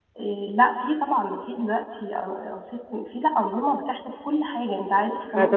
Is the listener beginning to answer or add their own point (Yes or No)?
Yes